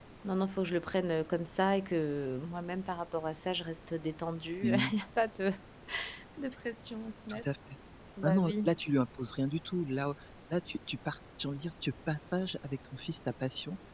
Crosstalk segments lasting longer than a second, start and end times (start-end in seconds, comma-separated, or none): none